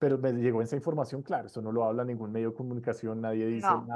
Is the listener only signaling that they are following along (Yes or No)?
Yes